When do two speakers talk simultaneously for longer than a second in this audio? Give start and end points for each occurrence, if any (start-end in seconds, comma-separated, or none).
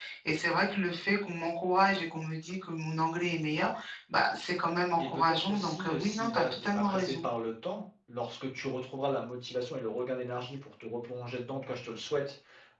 5.0-7.2